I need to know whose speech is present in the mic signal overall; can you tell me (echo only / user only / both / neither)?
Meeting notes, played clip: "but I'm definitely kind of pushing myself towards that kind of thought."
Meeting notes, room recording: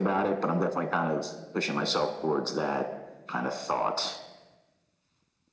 echo only